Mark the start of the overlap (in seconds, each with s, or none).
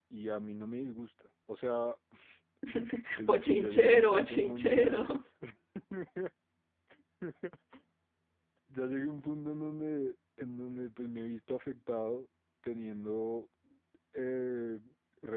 3.3 s